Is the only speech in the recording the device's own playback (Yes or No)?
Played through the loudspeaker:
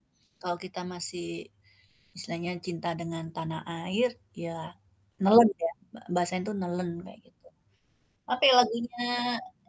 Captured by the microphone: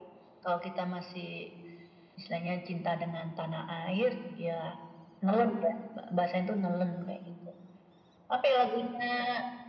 Yes